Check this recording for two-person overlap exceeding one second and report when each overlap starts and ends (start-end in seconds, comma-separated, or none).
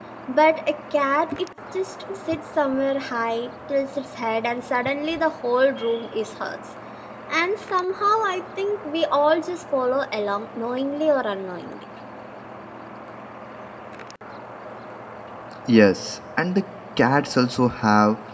none